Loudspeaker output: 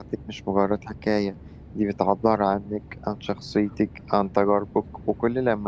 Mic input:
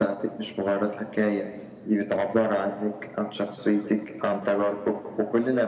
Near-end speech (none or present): none